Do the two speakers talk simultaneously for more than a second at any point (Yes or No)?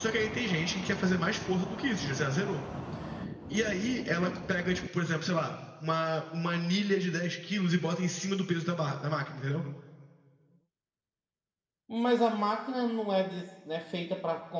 No